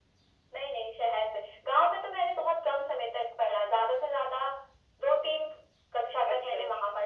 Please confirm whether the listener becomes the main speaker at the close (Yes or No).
No